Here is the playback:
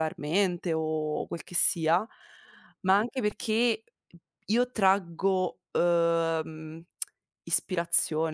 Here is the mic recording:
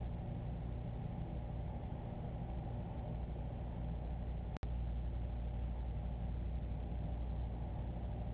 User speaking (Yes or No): No